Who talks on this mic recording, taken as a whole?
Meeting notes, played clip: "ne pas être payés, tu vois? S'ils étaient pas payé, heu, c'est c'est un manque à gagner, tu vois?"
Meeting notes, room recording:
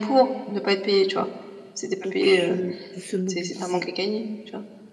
both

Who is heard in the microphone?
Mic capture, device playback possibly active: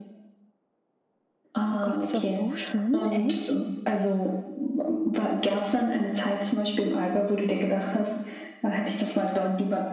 both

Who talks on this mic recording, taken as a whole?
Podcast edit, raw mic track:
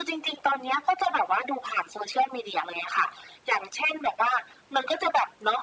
echo only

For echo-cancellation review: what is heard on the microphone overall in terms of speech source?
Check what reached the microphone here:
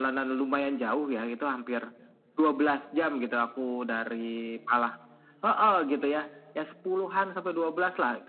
echo only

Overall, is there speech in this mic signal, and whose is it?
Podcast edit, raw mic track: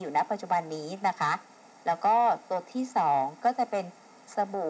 echo only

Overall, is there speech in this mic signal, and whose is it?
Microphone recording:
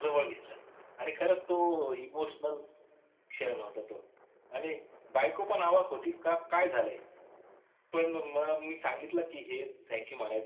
echo only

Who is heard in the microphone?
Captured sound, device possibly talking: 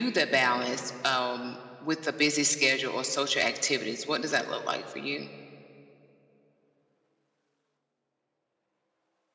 echo only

